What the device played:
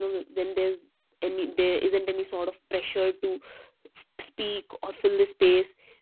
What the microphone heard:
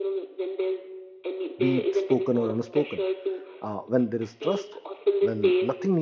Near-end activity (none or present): present